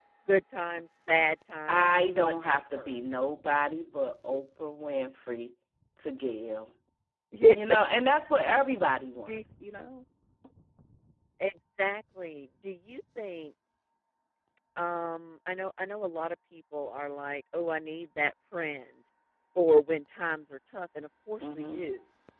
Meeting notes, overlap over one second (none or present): present